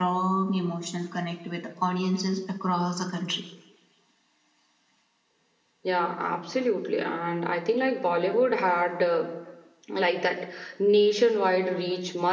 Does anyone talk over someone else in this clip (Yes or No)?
No